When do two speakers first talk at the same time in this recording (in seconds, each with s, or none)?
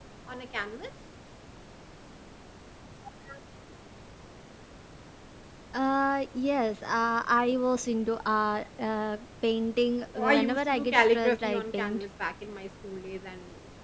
10.2 s